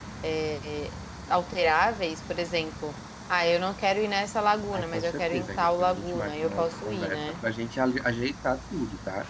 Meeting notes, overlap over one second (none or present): present